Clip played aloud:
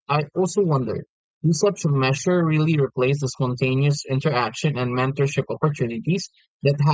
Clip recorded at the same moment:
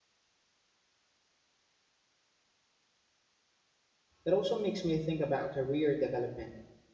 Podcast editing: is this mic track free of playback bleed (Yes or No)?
Yes